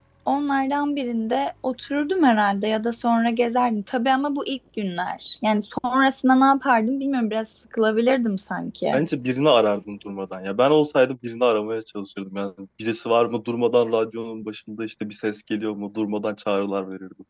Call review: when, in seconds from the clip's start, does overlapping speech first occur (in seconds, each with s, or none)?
none